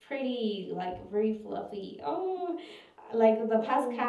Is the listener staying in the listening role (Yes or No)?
Yes